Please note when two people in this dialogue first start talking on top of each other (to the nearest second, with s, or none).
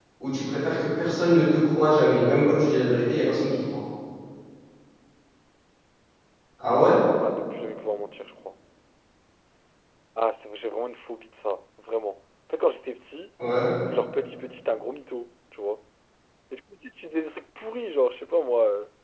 none